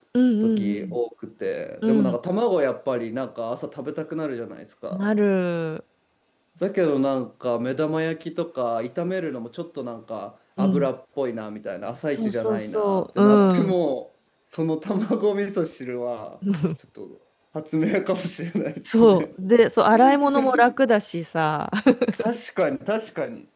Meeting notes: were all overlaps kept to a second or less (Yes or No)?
No